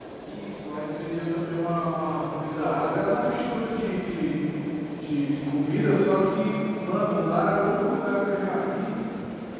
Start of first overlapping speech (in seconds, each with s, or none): none